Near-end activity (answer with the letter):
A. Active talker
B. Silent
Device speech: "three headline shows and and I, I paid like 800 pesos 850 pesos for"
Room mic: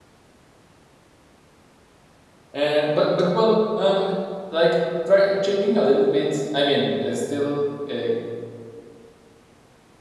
A